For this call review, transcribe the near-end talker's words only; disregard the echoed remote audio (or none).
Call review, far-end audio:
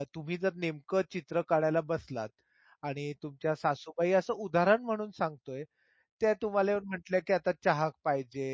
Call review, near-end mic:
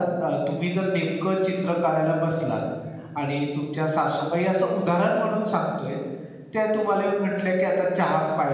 none